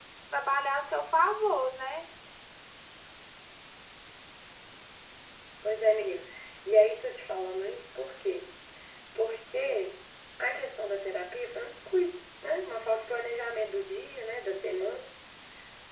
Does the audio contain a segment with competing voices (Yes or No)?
No